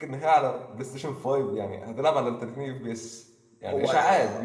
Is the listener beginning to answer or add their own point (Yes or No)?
Yes